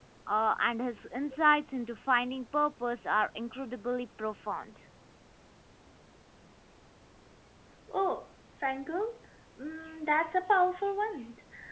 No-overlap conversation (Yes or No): Yes